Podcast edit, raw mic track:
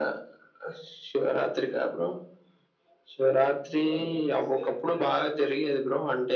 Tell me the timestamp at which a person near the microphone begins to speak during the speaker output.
none

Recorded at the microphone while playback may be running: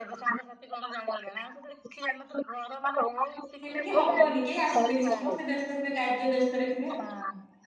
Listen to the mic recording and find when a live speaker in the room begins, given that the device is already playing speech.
3.6 s

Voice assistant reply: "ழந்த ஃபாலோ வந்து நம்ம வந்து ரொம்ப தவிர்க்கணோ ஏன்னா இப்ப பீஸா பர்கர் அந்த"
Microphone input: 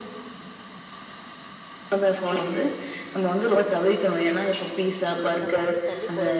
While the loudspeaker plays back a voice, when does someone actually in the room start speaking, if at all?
5.4 s

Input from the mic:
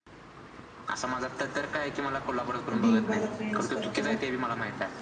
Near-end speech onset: 2.7 s

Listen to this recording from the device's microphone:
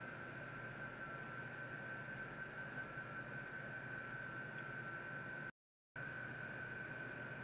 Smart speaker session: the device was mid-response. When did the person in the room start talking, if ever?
none

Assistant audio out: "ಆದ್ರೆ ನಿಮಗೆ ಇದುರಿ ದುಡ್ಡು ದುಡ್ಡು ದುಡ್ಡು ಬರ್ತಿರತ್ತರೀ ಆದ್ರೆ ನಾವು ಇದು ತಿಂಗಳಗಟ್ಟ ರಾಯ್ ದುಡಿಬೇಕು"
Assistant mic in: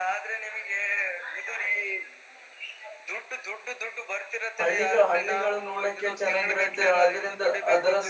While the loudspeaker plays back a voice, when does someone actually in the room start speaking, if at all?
4.6 s

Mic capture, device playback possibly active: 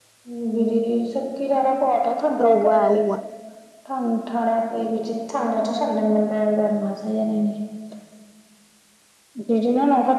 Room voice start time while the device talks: 2.4 s

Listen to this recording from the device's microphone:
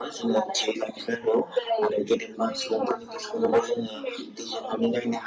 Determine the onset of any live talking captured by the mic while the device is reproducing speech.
none

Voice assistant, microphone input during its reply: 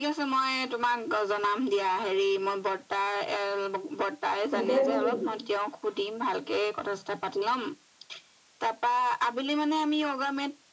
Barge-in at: 4.5 s

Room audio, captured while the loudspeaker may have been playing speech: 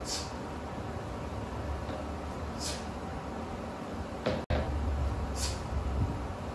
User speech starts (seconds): none

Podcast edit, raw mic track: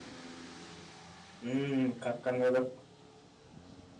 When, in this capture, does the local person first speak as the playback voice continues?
1.4 s

